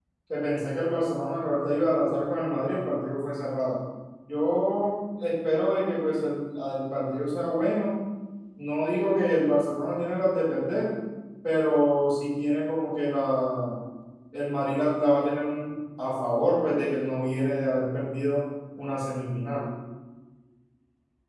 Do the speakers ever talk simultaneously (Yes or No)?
No